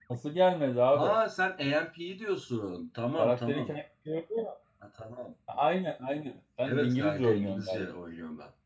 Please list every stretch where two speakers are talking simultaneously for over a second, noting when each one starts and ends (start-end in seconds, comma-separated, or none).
6.6-7.9